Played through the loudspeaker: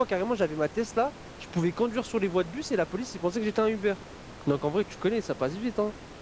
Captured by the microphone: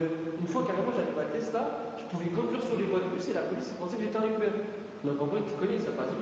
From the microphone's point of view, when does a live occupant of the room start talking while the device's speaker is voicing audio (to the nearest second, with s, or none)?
none